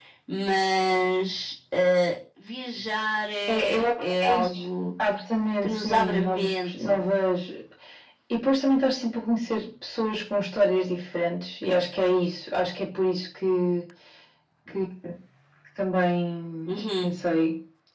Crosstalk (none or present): present